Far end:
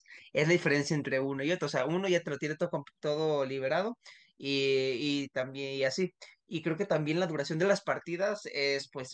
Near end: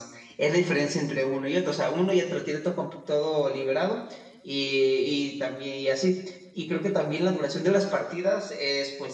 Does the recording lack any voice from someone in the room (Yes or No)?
Yes